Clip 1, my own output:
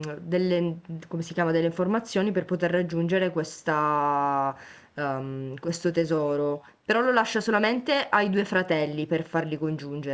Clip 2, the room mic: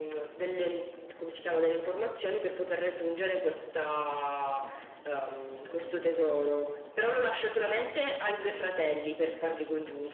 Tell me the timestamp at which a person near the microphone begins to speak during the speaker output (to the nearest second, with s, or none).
none